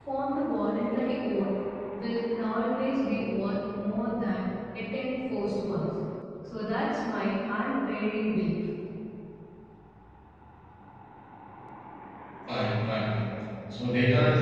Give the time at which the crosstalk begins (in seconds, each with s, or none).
none